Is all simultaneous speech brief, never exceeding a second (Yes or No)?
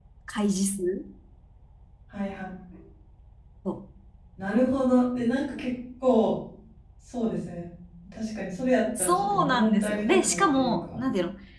No